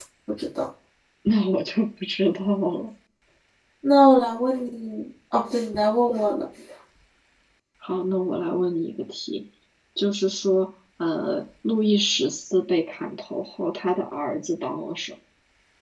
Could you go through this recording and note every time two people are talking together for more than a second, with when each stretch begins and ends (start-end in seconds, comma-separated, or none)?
none